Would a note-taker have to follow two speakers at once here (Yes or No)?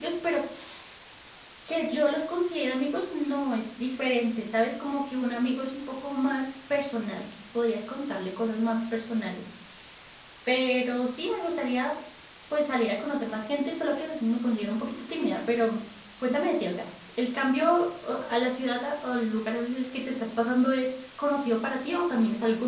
No